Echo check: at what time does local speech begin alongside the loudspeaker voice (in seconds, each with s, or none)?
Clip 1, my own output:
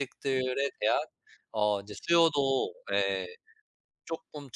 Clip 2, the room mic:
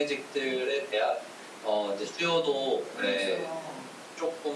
2.8 s